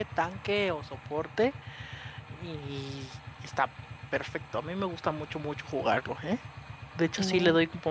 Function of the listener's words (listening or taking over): listening